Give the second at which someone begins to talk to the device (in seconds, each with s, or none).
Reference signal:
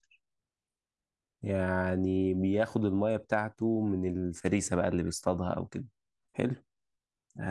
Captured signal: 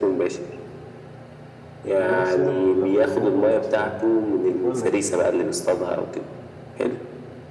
2.0 s